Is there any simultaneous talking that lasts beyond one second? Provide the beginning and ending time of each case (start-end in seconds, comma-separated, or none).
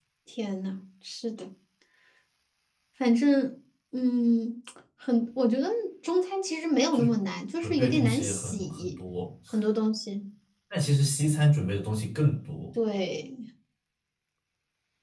7.6-9.0